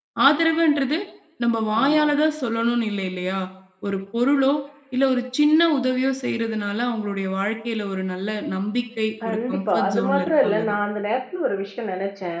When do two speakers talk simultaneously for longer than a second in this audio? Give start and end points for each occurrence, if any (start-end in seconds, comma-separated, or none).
9.2-10.8